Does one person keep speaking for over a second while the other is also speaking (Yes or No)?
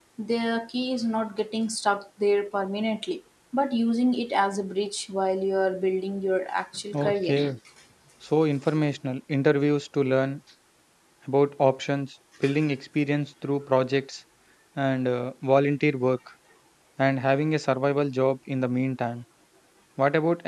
No